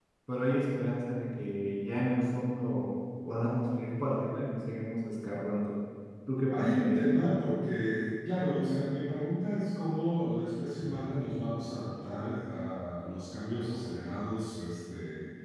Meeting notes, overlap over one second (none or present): none